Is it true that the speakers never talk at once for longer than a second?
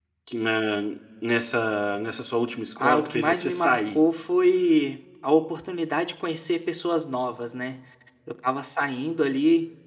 No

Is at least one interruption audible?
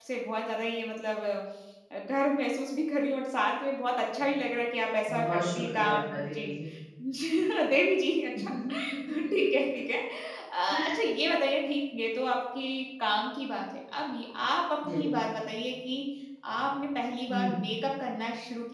Yes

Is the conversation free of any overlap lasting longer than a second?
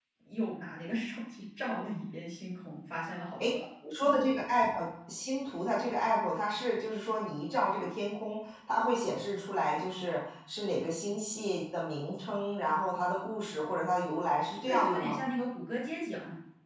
Yes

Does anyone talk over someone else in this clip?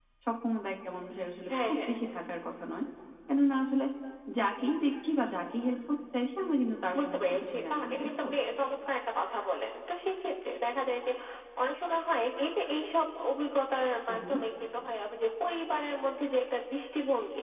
Yes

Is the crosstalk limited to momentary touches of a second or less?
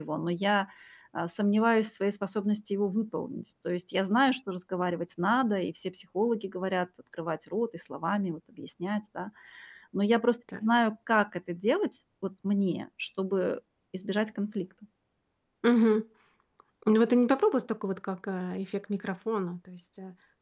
Yes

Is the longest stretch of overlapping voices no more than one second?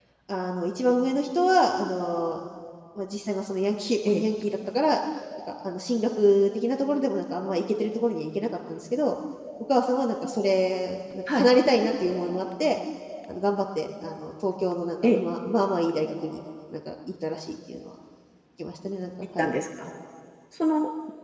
Yes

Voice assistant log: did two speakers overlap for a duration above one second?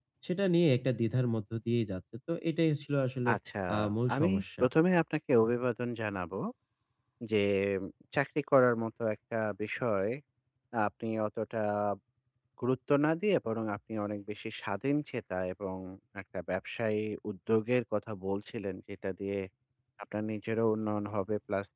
No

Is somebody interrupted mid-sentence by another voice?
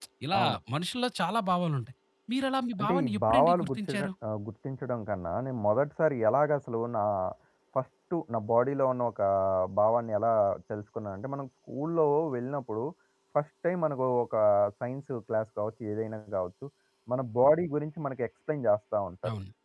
Yes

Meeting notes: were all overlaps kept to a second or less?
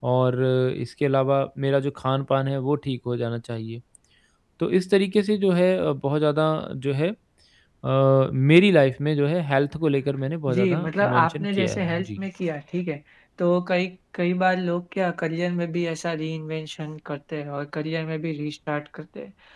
No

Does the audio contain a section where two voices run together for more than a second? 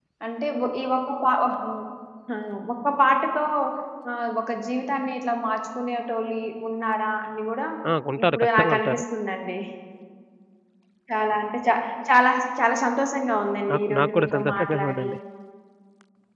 Yes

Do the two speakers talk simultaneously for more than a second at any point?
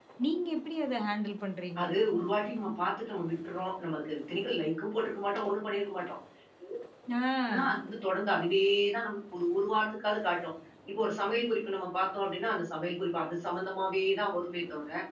No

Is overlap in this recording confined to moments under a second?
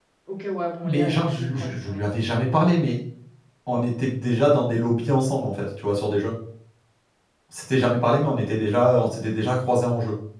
No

